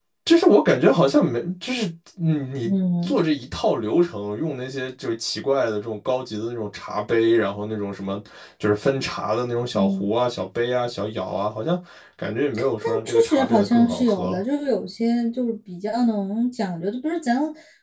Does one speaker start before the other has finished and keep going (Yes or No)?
Yes